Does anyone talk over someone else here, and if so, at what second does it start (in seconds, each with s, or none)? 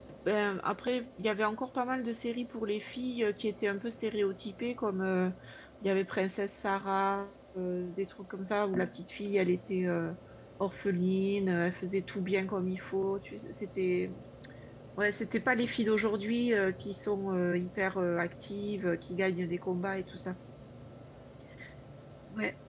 none